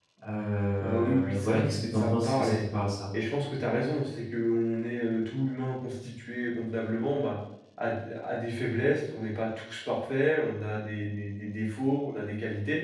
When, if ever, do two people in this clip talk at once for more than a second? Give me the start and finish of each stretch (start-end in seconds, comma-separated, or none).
0.8-2.6